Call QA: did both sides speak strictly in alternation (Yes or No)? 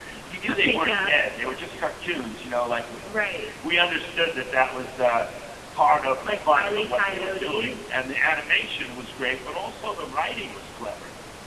No